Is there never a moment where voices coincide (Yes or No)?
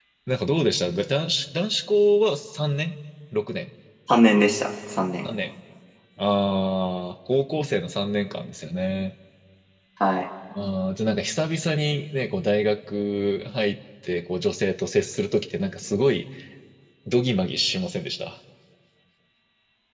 Yes